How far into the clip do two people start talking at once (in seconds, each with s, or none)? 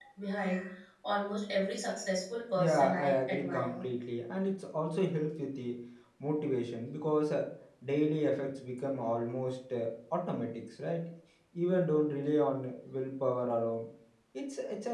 2.6 s